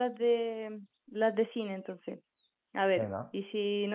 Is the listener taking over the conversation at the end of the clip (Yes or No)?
No